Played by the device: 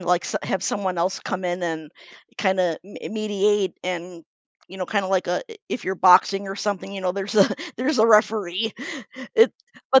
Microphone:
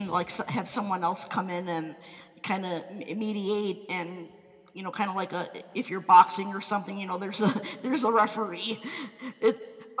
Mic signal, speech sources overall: echo only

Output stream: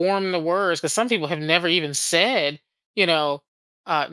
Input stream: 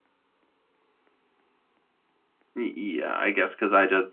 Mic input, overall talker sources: user only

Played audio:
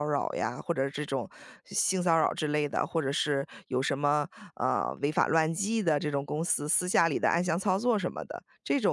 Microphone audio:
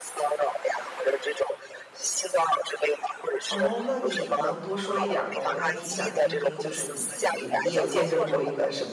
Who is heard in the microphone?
both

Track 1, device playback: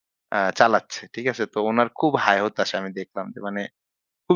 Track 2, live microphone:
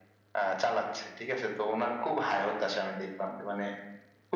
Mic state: echo only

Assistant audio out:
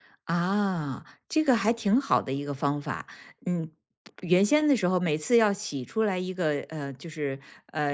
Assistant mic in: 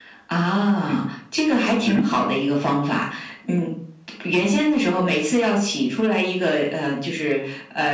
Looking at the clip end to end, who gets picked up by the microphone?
both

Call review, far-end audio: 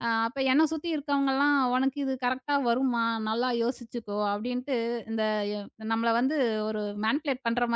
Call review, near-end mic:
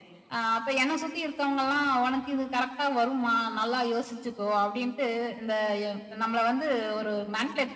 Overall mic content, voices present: echo only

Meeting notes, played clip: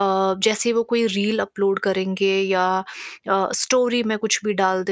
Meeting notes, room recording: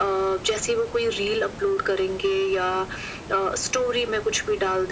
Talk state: echo only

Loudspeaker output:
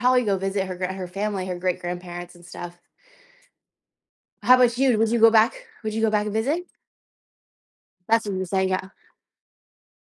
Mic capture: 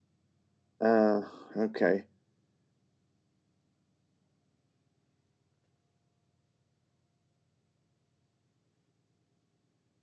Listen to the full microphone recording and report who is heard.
user only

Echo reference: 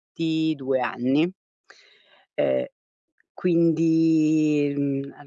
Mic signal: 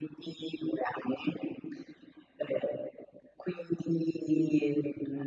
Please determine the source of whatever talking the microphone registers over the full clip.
echo only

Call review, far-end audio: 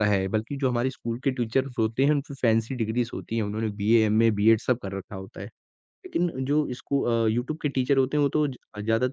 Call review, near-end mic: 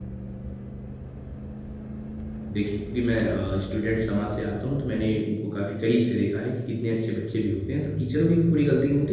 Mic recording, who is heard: user only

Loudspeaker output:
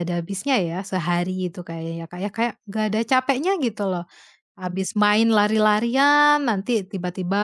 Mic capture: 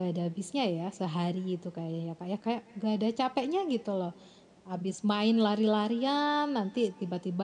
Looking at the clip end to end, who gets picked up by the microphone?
echo only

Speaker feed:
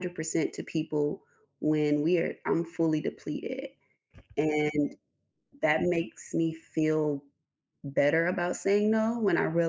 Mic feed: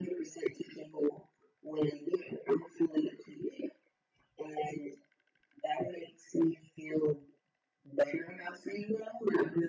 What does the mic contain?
echo only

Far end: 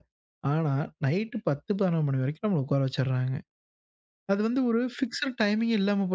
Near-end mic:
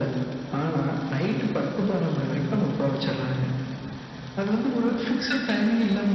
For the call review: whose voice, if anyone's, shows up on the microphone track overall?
echo only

